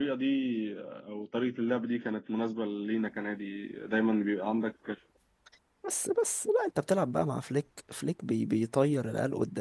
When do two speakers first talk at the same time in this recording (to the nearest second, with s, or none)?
none